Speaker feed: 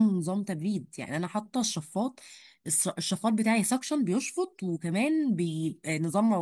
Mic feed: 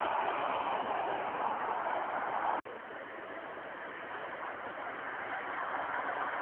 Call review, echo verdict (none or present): none